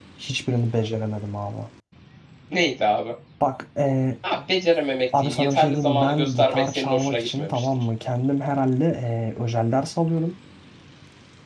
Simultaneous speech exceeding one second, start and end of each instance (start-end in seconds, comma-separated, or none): 5.2-7.8